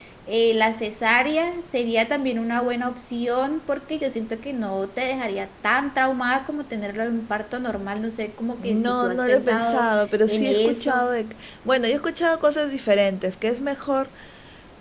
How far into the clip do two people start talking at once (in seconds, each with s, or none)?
8.6 s